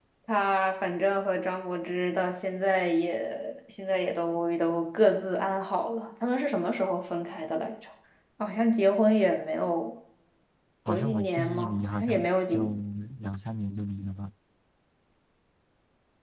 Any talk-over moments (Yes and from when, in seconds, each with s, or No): Yes, from 10.9 s